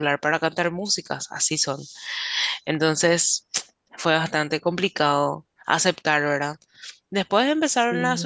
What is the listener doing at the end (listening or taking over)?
listening